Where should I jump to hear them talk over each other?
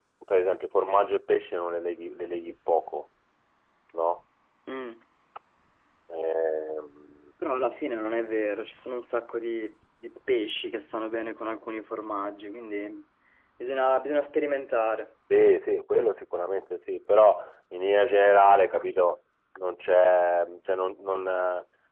none

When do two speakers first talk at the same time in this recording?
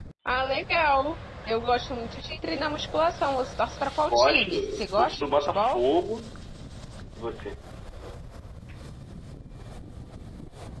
4.1 s

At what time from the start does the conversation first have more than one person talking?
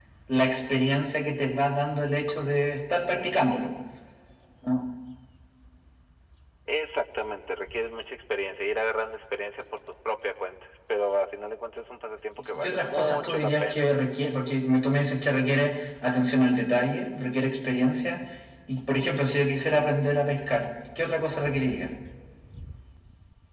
12.5 s

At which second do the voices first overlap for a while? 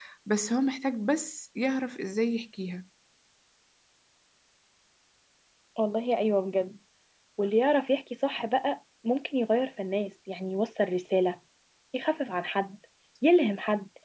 none

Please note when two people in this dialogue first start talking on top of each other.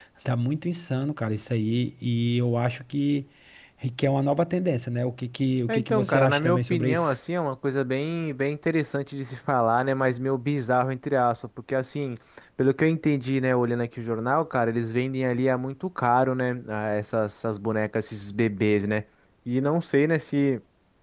5.7 s

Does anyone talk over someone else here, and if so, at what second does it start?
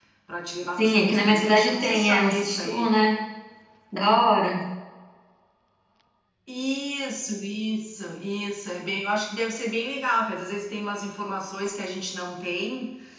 0.8 s

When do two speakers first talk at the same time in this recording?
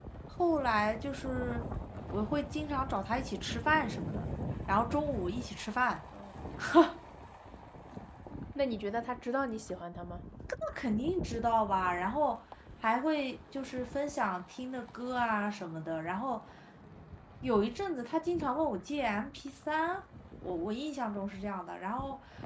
none

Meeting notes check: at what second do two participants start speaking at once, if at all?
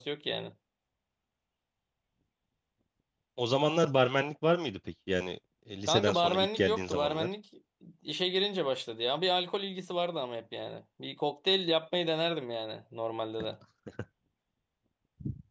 5.9 s

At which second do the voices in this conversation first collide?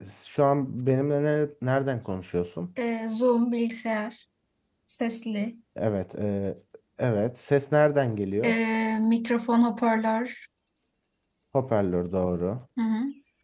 none

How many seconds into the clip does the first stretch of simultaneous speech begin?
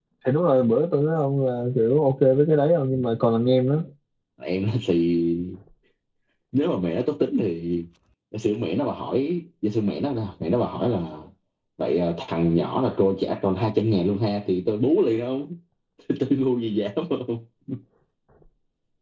none

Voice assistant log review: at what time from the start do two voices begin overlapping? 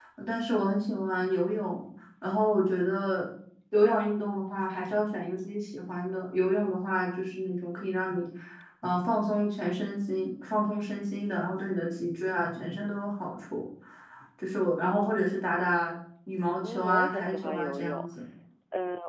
16.6 s

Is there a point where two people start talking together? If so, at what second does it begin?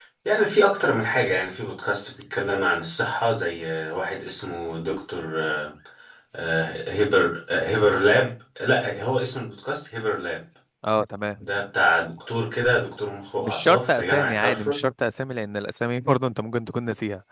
13.4 s

